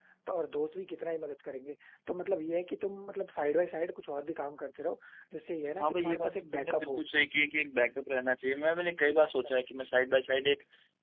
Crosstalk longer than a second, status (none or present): present